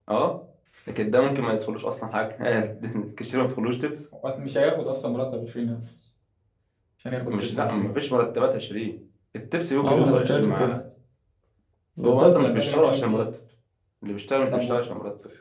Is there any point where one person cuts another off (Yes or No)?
Yes